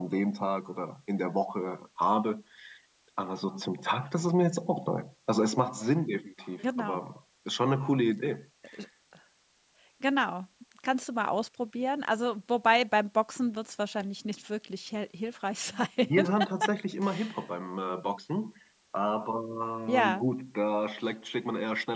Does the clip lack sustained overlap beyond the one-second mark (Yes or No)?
Yes